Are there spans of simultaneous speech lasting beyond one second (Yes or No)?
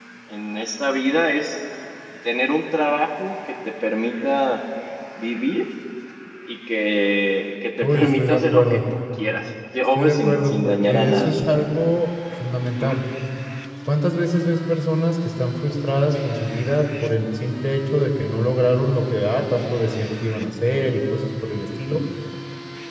Yes